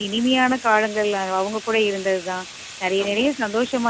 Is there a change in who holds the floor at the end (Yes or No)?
No